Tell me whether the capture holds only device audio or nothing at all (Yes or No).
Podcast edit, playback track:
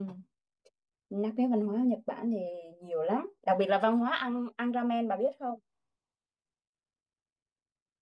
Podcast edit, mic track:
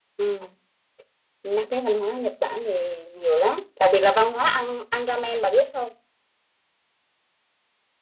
Yes